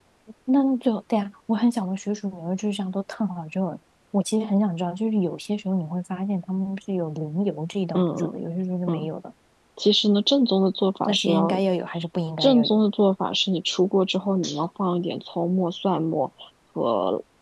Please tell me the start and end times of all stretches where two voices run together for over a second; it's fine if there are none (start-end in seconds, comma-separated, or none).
none